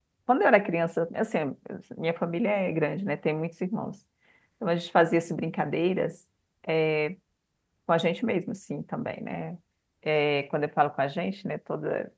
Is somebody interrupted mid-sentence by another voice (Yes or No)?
No